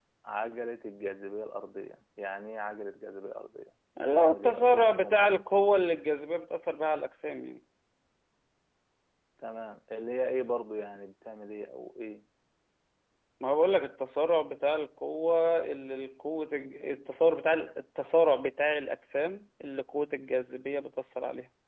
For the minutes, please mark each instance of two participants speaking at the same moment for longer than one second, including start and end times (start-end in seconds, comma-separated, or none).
4.0-5.3